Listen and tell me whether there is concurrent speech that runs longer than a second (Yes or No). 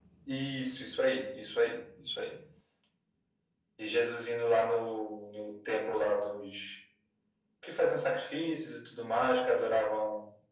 No